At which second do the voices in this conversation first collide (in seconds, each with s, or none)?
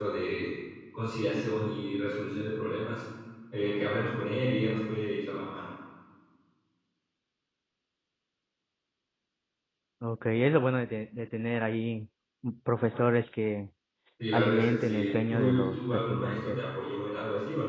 14.3 s